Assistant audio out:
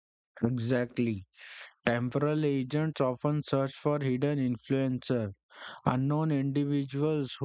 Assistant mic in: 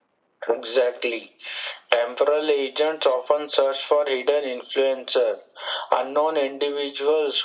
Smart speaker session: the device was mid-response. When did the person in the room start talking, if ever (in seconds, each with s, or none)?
none